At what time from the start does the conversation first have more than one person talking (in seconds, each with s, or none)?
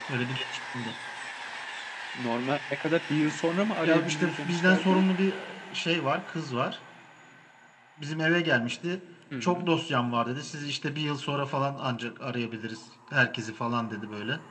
3.8 s